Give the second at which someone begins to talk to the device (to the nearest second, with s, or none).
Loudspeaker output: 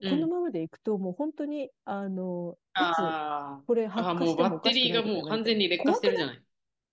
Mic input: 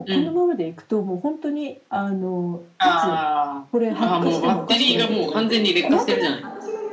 4 s